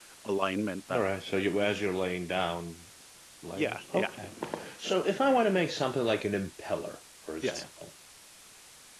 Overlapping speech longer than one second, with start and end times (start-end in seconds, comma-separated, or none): none